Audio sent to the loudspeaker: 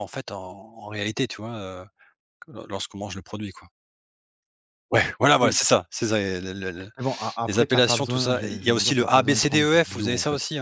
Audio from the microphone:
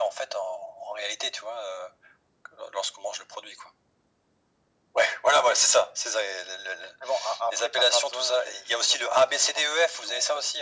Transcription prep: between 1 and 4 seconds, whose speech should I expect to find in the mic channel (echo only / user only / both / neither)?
echo only